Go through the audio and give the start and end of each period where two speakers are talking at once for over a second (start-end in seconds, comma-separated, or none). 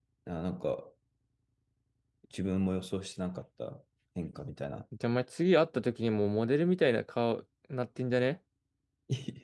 none